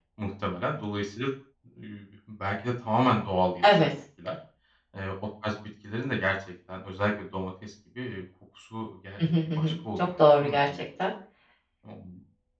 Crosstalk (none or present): present